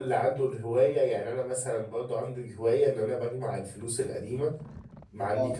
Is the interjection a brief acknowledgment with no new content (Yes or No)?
Yes